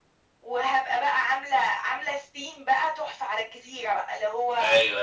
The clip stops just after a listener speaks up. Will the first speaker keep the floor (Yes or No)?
Yes